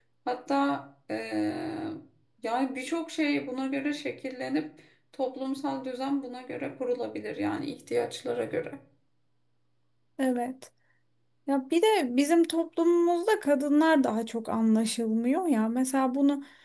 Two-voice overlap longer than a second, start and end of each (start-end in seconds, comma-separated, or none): none